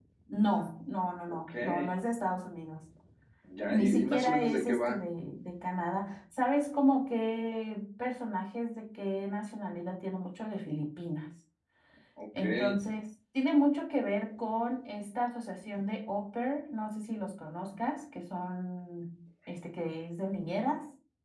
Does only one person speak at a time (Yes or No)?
No